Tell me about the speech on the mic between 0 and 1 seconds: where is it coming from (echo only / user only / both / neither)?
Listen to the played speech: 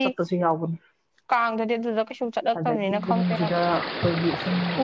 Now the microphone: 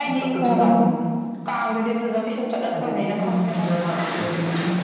both